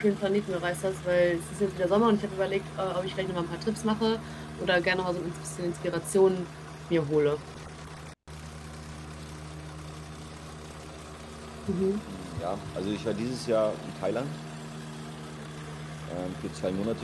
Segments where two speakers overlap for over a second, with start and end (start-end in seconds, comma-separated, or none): none